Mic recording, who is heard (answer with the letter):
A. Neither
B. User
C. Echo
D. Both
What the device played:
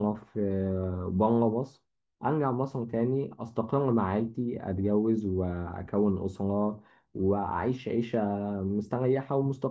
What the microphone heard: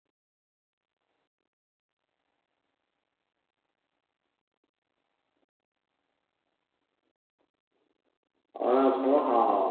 B